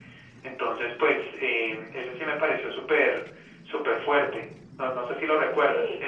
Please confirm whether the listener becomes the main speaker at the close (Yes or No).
Yes